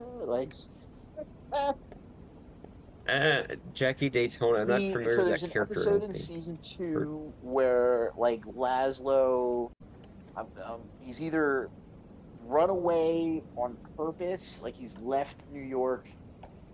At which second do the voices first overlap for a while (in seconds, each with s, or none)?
4.7 s